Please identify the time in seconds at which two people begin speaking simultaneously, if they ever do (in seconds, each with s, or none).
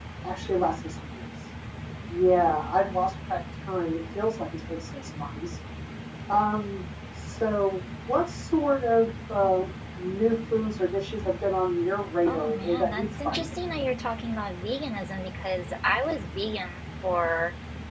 12.2 s